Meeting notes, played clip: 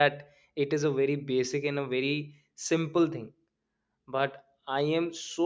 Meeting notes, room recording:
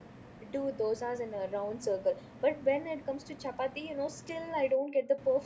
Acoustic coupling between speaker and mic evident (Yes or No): No